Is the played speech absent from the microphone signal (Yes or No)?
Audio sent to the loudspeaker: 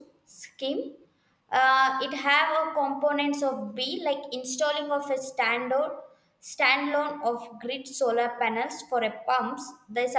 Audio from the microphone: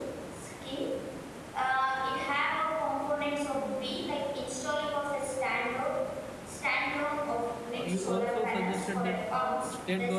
No